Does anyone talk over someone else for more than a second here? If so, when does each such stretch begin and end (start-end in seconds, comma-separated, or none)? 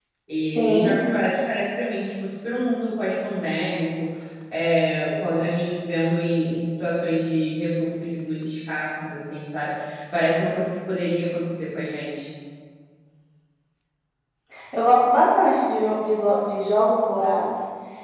none